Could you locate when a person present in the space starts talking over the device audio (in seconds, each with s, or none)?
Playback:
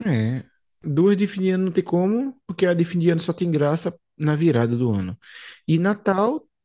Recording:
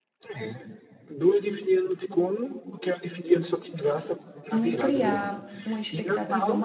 4.5 s